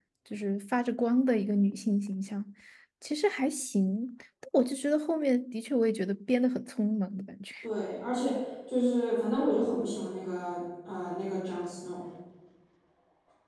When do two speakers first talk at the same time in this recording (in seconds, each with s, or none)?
none